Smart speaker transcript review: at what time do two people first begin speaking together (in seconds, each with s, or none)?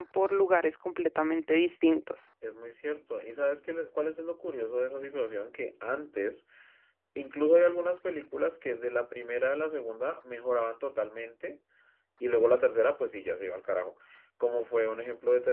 none